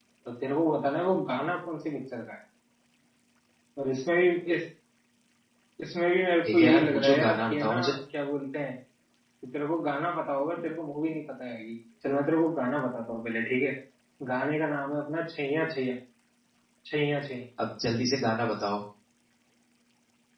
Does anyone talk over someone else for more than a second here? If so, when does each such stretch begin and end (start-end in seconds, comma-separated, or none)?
6.5-7.9